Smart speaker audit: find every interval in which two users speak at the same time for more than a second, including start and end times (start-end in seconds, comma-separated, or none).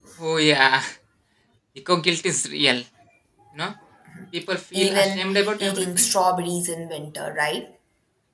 4.7-6.1